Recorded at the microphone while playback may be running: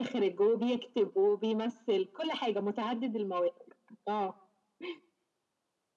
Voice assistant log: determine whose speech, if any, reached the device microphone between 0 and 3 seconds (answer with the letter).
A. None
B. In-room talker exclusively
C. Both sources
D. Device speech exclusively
D